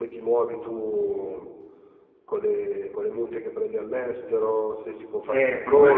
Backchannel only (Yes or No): No